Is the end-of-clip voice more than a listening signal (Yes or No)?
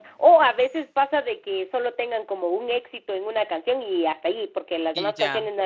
No